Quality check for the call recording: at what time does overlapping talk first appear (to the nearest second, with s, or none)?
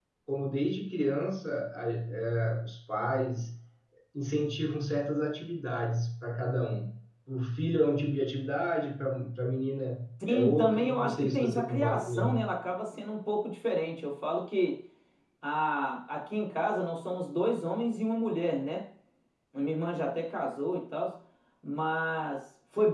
10 s